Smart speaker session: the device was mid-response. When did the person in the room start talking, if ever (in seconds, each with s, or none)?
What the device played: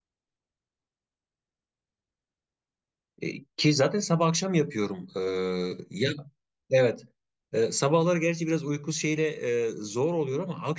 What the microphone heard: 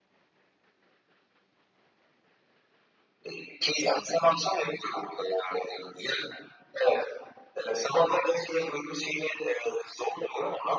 none